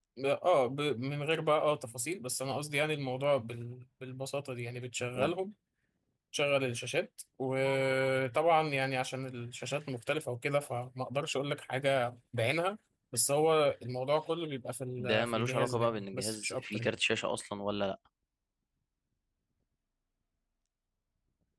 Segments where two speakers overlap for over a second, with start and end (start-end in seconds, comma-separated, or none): 15.0-16.9